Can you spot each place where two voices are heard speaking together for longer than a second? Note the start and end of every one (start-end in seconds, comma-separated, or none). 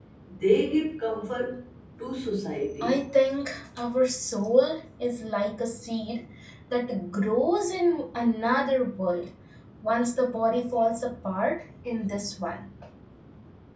none